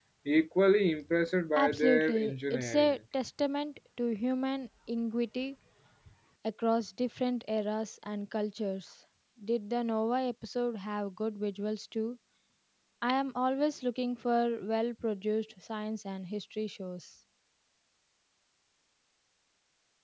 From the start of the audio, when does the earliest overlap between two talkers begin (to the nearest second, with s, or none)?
2 s